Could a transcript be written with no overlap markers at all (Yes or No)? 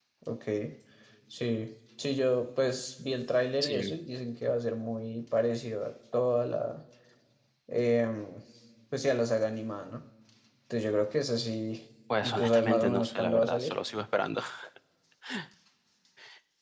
No